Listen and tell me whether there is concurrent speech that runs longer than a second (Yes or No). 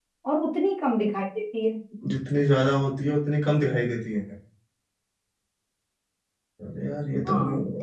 No